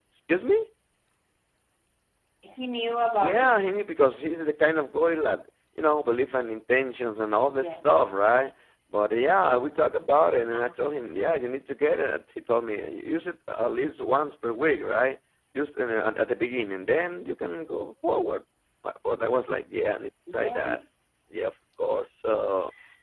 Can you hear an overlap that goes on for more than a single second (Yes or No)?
No